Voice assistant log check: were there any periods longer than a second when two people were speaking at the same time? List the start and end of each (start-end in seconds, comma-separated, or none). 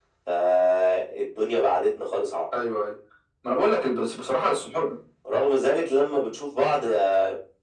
none